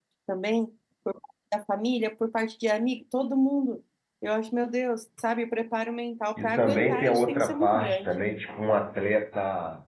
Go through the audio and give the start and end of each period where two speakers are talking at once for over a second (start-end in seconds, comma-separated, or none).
6.4-8.1